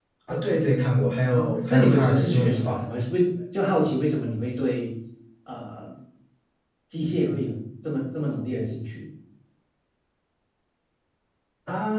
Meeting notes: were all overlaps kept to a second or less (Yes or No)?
No